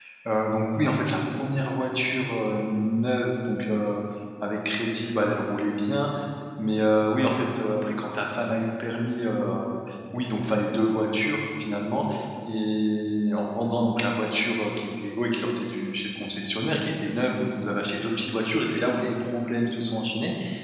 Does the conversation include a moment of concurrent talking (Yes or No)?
No